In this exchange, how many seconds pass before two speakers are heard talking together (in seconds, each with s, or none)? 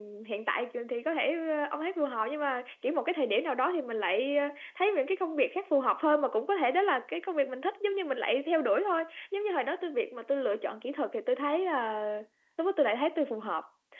none